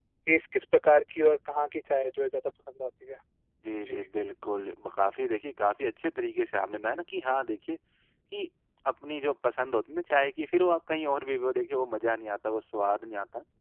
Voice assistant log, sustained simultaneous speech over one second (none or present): none